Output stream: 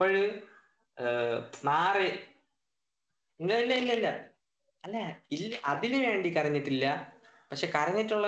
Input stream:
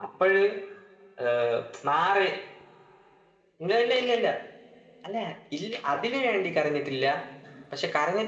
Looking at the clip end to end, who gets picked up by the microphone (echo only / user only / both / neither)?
echo only